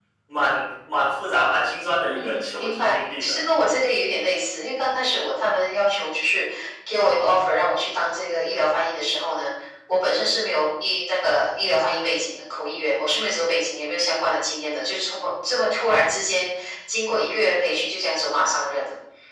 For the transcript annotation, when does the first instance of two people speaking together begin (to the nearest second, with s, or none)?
2 s